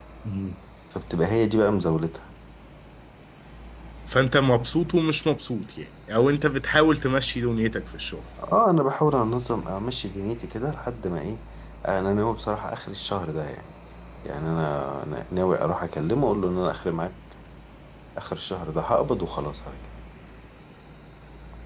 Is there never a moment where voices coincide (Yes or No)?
Yes